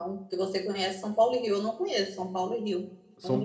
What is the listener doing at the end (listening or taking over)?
taking over